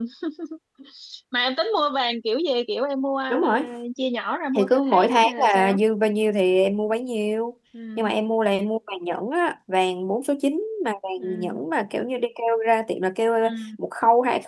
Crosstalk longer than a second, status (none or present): present